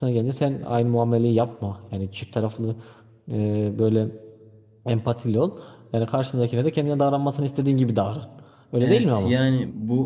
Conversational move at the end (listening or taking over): taking over